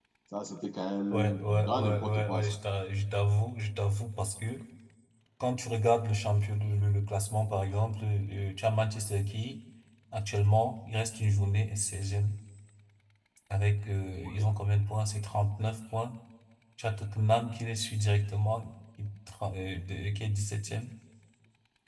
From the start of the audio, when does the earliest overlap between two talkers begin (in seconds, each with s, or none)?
1.1 s